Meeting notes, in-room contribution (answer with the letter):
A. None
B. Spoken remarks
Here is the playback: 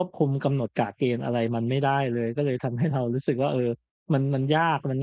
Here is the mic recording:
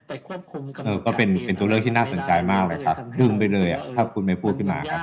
B